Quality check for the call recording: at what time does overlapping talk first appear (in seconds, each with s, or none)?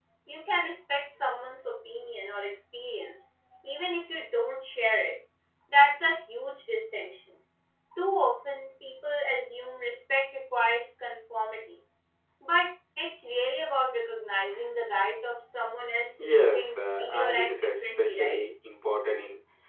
16.2 s